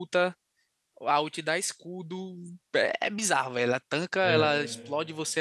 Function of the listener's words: listening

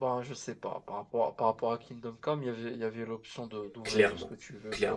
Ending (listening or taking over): taking over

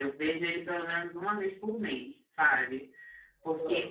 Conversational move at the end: listening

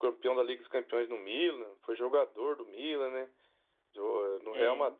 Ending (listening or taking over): listening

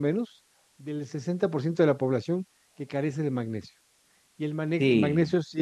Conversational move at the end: listening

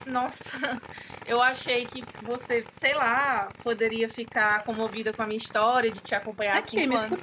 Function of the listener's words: taking over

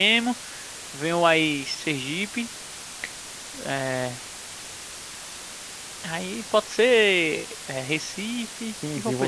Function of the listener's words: taking over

